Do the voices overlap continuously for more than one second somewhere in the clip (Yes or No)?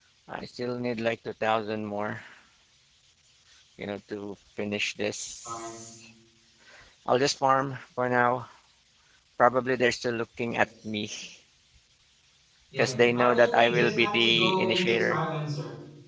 Yes